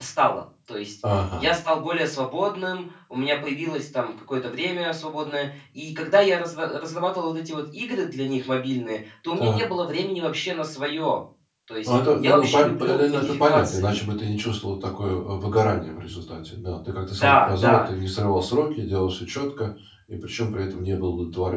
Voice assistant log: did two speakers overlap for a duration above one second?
Yes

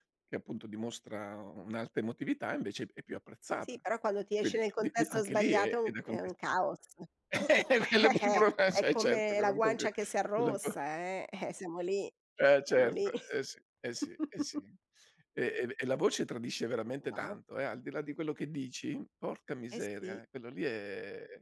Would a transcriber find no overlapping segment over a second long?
No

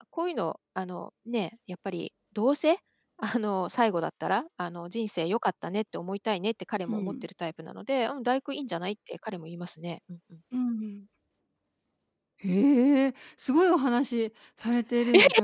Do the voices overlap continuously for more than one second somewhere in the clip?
No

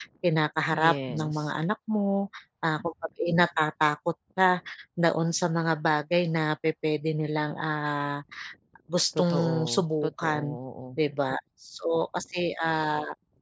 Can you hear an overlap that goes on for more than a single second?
Yes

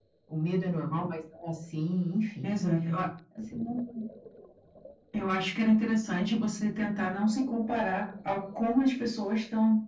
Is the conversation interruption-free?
Yes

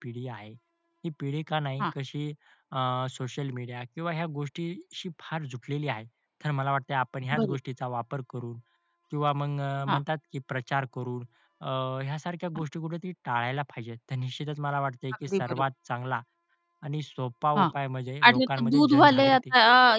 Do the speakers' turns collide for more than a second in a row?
Yes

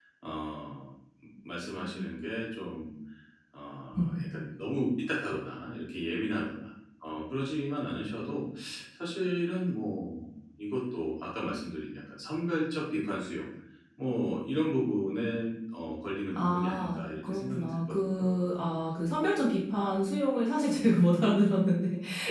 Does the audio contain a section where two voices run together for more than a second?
Yes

